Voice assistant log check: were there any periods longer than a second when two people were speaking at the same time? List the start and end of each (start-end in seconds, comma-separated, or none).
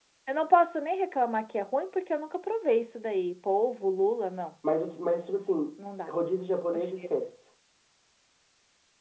none